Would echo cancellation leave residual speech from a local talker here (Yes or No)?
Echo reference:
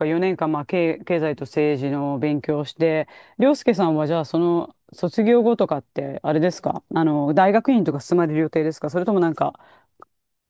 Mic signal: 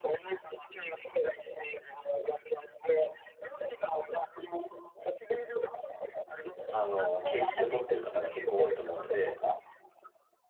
Yes